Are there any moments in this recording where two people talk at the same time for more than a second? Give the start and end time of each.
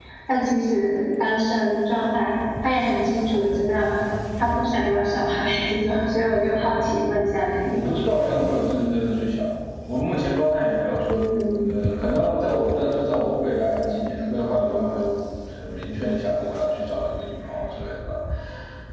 none

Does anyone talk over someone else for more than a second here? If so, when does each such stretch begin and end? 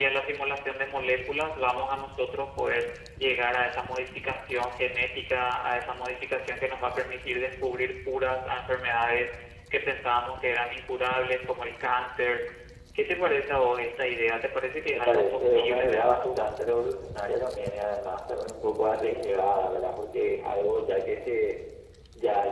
14.9-16.5

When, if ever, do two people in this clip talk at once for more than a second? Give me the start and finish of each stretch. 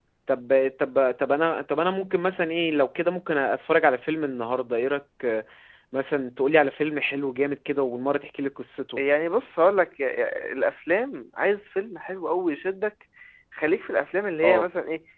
none

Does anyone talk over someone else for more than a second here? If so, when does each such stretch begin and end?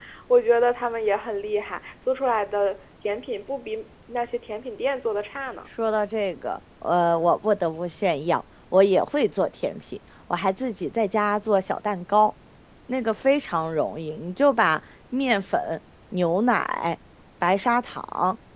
none

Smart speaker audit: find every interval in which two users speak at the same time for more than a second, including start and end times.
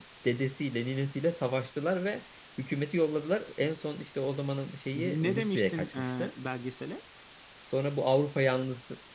4.9-6.3

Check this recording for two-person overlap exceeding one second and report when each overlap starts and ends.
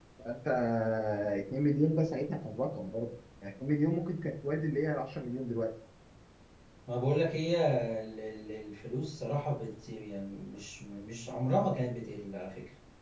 none

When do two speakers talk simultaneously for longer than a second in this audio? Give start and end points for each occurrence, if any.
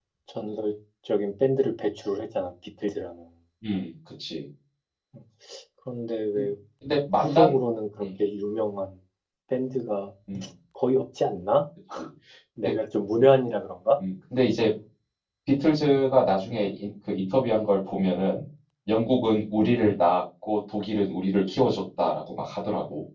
none

